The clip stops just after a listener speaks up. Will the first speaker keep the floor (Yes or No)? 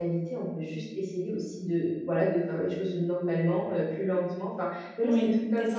No